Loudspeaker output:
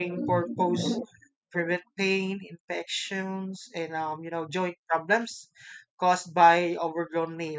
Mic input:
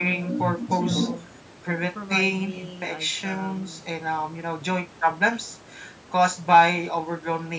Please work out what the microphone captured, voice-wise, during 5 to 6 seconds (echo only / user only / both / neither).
echo only